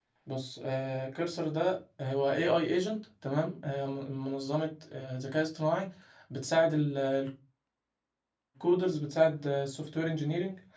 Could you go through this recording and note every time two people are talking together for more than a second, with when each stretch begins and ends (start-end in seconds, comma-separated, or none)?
none